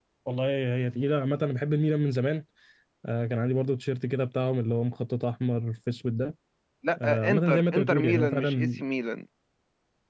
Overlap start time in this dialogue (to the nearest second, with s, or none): 7 s